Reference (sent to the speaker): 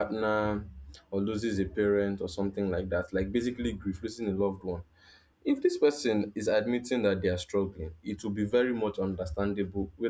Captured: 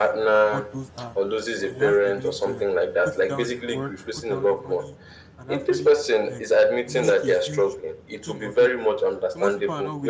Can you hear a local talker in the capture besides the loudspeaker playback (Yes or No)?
Yes